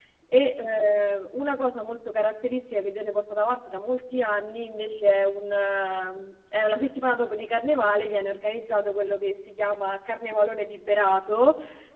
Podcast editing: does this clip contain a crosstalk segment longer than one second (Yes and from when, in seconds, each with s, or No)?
No